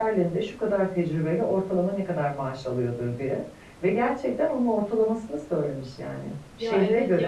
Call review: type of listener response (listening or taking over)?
taking over